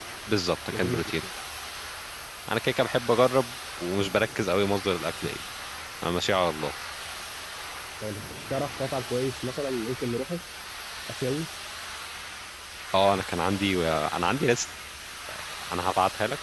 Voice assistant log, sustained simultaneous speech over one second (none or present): none